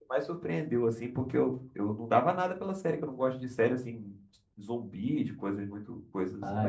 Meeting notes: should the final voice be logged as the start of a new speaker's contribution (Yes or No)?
Yes